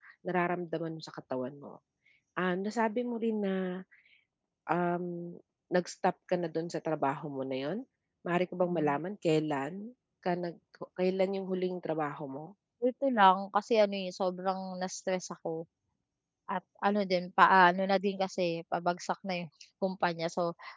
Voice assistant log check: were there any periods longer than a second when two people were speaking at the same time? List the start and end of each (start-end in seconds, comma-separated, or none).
none